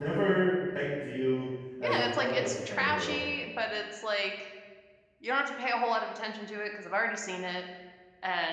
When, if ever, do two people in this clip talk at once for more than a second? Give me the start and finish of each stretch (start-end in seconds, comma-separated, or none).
1.8-3.2